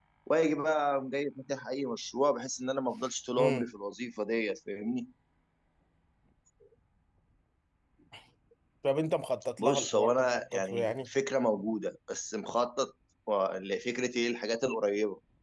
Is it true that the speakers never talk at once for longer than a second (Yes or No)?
No